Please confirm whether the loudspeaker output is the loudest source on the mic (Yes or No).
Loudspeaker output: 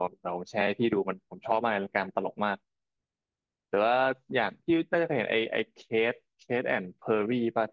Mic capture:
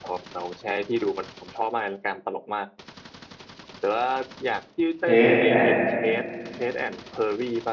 No